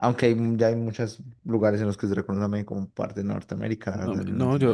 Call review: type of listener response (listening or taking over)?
taking over